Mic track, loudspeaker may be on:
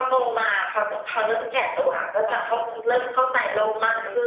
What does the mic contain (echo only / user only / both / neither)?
both